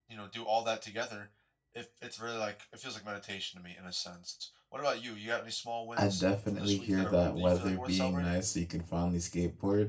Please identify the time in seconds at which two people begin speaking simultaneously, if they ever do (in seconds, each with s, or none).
6.0 s